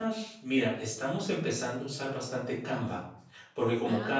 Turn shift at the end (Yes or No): No